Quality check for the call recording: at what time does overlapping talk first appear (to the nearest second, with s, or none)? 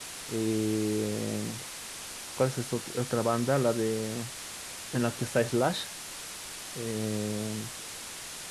none